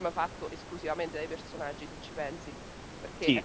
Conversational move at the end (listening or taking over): taking over